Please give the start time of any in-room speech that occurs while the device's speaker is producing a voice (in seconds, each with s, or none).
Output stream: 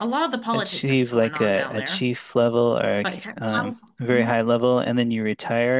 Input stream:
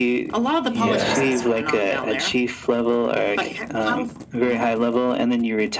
0.7 s